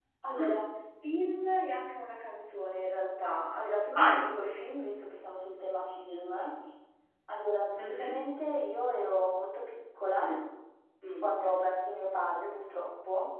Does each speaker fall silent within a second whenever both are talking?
Yes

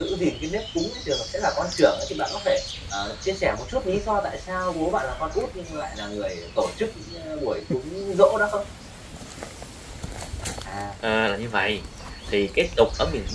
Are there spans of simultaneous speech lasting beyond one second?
No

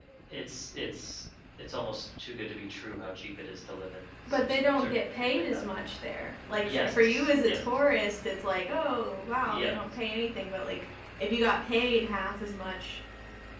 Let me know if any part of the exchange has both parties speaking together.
Yes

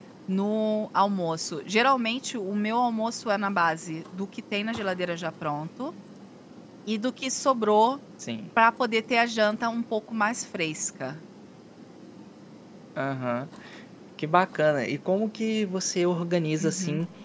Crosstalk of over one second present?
No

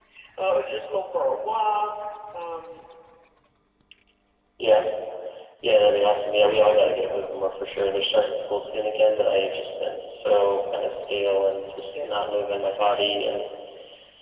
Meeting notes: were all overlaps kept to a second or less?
Yes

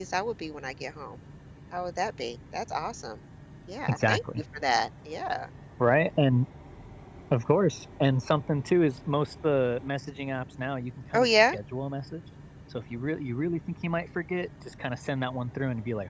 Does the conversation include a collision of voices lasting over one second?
No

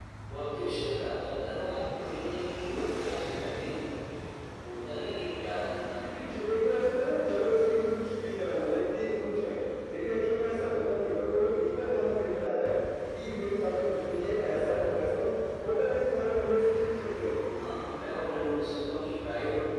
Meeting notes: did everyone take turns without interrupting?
Yes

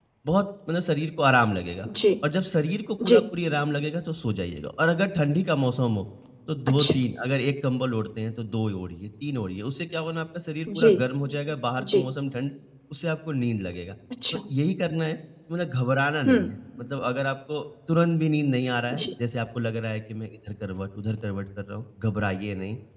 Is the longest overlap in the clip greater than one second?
No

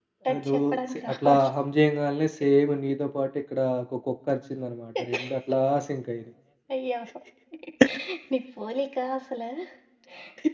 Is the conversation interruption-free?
No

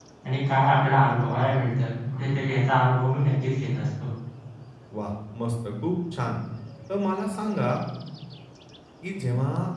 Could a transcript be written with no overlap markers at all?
Yes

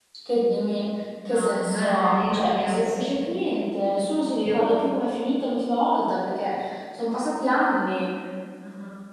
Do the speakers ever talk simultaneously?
Yes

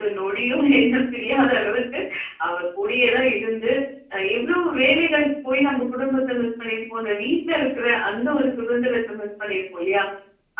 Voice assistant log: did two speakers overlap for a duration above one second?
No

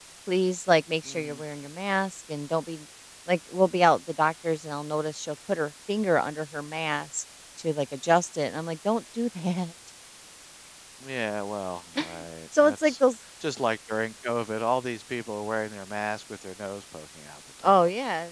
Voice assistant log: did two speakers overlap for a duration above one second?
No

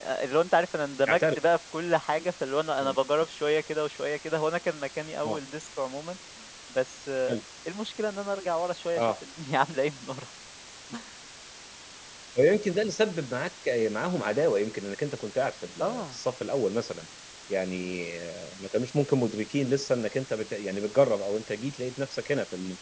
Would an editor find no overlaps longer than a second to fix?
Yes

